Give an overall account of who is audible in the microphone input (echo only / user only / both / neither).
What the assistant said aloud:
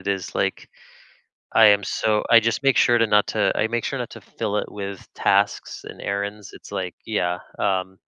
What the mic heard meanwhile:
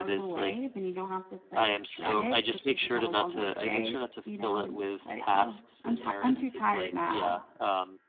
both